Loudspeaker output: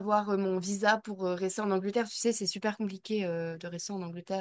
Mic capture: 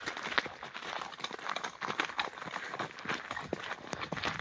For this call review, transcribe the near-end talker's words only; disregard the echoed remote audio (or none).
none